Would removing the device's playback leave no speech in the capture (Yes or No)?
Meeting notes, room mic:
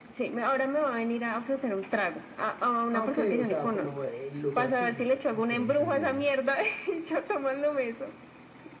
No